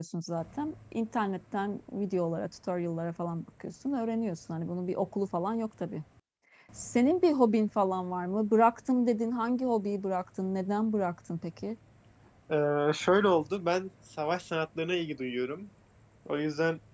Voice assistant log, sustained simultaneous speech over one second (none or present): none